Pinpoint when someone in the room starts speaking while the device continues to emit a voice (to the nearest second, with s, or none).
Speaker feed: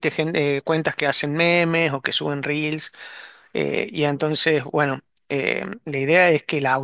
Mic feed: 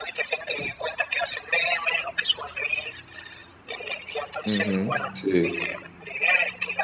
4 s